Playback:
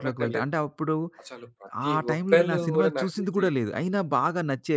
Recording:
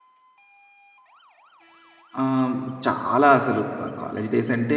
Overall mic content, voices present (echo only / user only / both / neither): user only